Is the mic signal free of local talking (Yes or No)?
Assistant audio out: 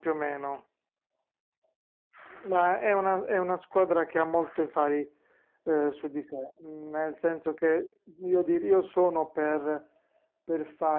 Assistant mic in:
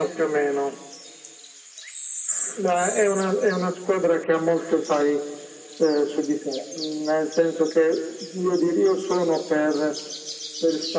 Yes